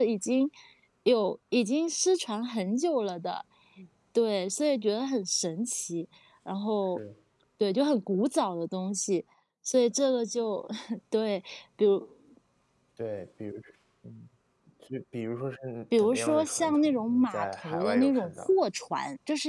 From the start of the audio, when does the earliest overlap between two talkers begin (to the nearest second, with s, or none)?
16 s